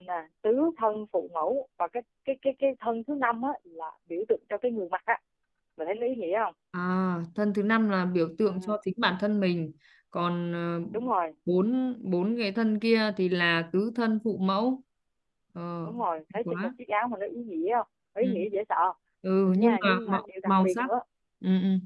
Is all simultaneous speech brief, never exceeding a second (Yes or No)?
No